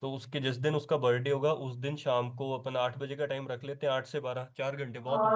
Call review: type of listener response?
taking over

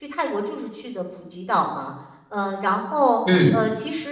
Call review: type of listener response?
listening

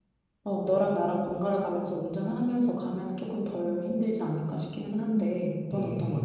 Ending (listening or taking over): taking over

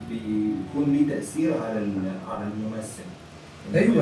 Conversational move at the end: taking over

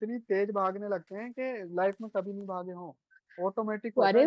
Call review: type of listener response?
taking over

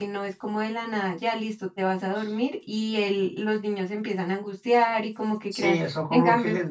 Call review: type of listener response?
taking over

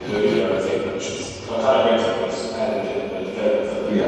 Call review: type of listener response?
taking over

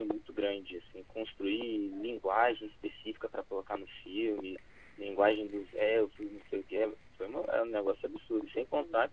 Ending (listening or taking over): listening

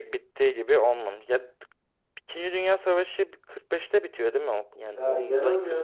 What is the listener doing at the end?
taking over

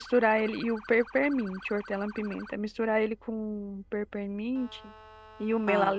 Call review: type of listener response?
listening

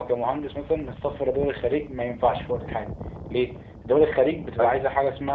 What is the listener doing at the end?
listening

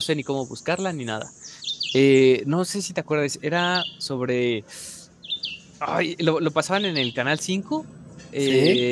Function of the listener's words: listening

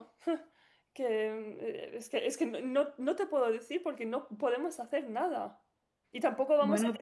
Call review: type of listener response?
listening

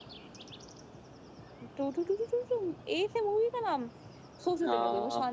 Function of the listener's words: listening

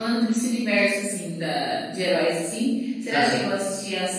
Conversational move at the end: listening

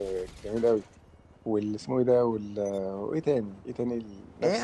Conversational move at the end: taking over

